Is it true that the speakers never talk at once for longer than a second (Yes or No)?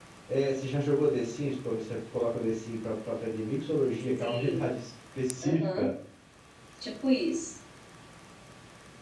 Yes